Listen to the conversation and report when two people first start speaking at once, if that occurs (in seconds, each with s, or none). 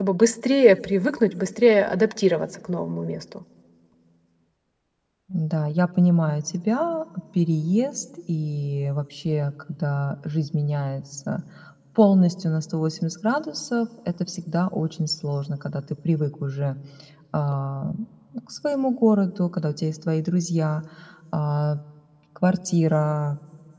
none